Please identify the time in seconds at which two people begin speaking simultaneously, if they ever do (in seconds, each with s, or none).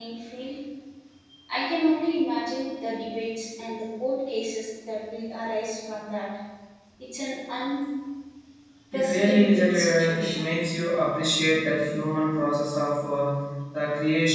8.9 s